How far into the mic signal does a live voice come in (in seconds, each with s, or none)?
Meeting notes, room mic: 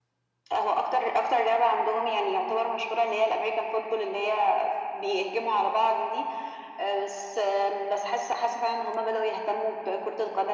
none